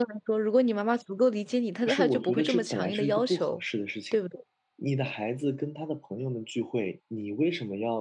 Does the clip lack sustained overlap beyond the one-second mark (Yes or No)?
No